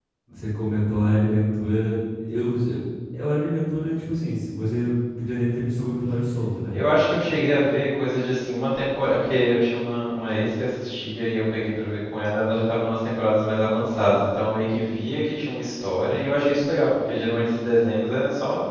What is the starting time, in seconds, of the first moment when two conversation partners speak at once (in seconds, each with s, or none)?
none